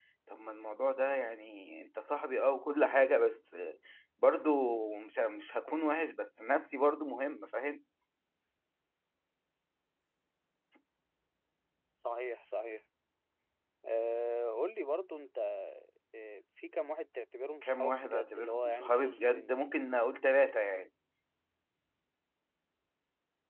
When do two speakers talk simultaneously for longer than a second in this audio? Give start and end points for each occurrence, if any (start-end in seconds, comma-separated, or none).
17.6-19.6